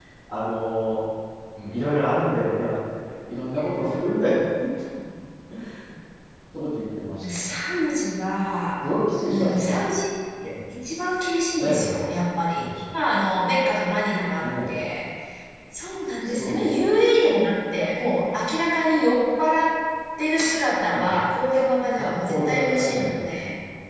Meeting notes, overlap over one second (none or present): present